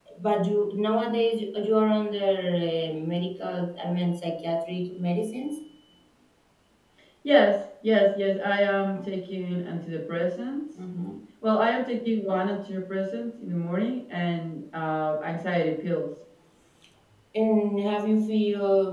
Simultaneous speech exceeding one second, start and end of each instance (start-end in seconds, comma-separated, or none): none